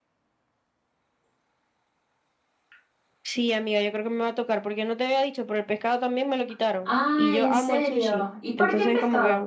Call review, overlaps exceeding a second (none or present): present